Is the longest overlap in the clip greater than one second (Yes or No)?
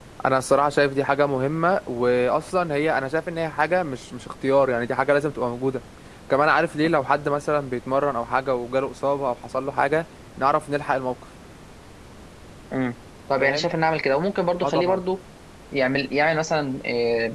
No